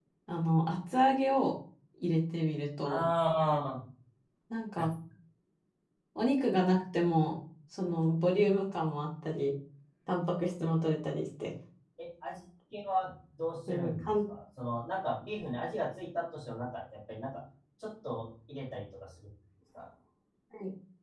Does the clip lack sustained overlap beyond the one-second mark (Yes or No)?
Yes